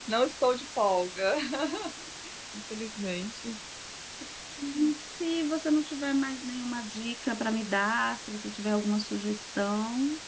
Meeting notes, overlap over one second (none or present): none